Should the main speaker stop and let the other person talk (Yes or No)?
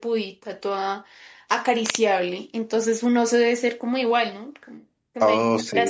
Yes